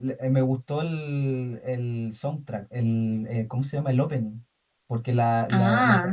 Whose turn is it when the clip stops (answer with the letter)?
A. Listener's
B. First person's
B